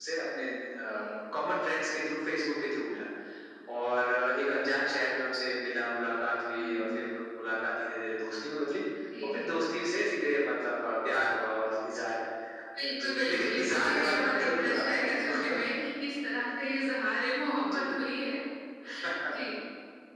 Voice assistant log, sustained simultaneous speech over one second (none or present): present